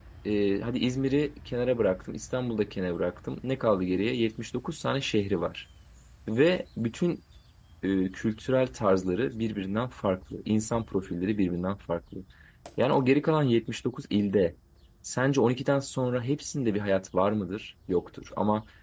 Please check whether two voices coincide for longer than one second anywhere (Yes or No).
No